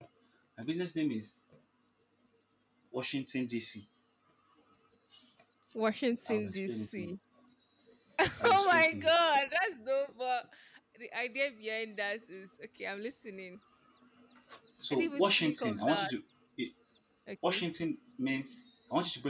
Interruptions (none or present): present